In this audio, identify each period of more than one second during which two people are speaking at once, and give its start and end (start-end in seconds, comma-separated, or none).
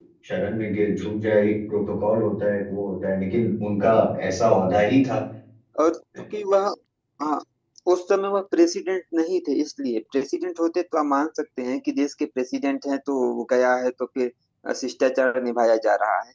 none